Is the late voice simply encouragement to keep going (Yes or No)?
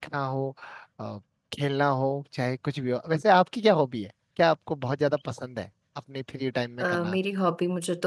No